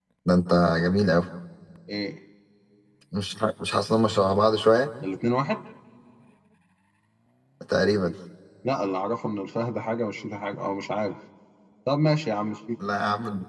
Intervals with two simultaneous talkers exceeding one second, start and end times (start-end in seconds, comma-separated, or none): none